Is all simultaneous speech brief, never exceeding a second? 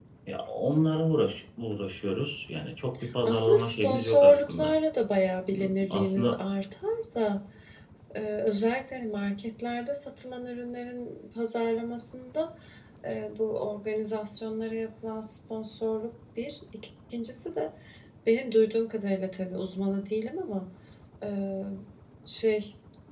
No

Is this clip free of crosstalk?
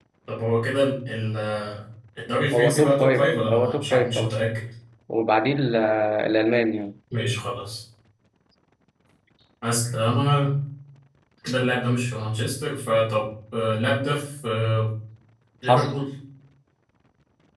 No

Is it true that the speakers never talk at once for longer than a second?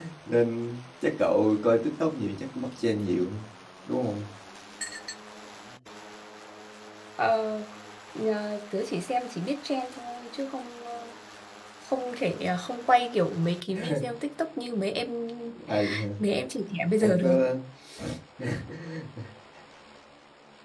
Yes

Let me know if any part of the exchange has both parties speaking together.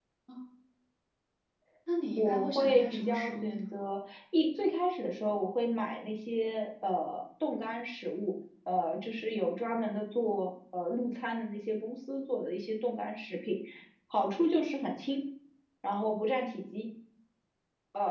Yes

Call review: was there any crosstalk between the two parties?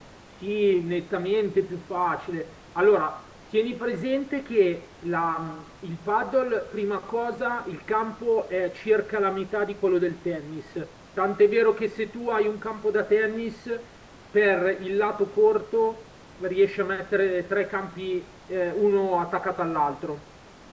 No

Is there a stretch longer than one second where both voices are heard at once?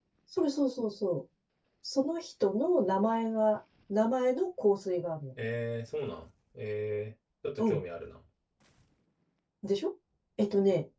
No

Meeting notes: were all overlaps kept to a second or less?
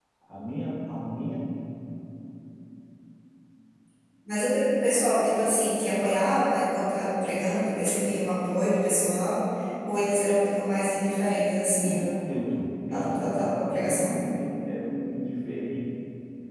No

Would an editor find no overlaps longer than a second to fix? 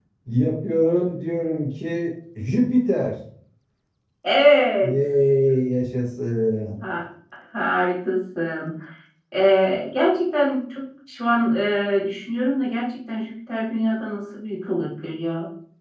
Yes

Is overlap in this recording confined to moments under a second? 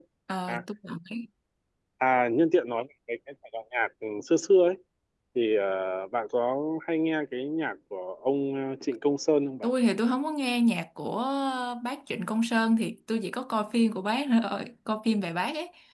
Yes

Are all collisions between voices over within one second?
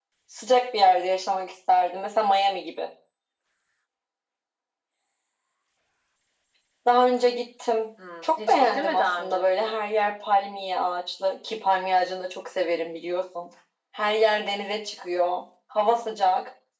No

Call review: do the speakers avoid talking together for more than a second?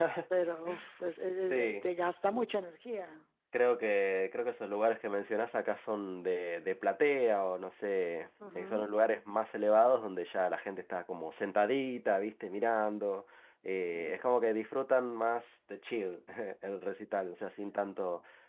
Yes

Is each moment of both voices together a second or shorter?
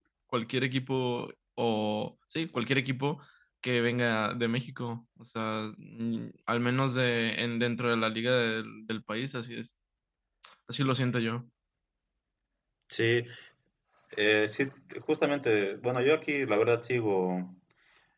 Yes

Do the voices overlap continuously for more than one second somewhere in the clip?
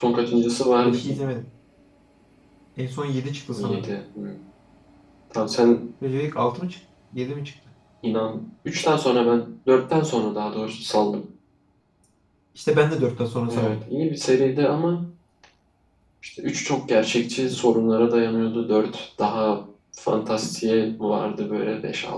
No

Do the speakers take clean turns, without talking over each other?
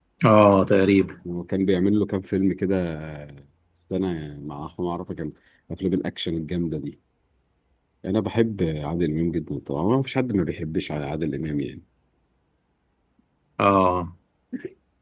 Yes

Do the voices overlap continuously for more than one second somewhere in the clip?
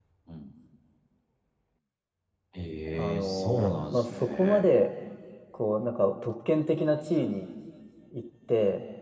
Yes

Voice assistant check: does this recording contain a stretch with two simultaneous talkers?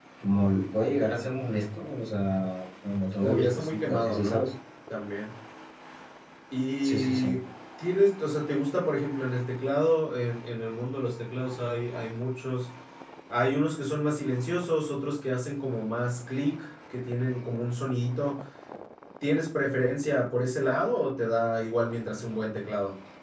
Yes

